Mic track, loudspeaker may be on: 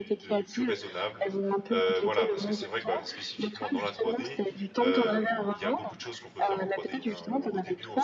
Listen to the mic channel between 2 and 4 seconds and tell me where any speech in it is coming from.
both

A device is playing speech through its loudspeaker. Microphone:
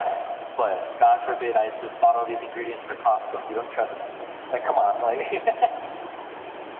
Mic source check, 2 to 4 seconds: echo only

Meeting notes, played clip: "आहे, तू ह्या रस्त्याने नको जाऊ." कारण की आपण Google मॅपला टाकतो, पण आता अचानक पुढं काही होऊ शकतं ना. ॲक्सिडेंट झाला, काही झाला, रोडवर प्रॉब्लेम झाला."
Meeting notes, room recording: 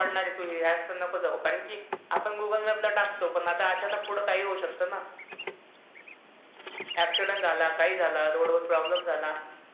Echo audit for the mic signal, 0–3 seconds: echo only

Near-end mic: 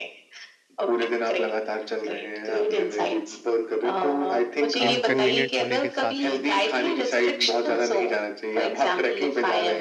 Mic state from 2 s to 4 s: echo only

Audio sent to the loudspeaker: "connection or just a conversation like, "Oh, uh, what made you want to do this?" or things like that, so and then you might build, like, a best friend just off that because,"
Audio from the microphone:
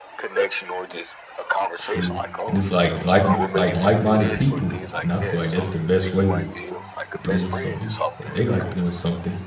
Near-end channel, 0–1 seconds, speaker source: echo only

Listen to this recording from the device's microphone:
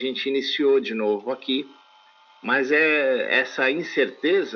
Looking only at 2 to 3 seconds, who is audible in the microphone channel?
echo only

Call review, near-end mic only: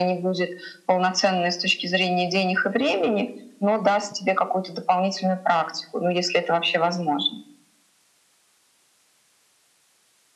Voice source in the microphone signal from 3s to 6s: echo only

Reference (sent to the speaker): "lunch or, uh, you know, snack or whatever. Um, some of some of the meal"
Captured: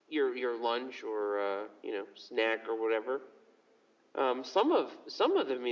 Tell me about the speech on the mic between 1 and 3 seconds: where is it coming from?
echo only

